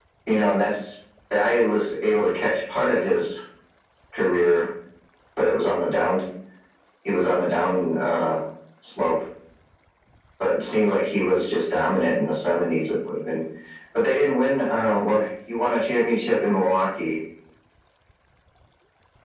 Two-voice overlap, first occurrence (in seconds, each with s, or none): none